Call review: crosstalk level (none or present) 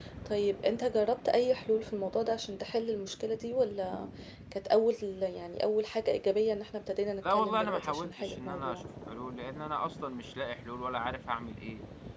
present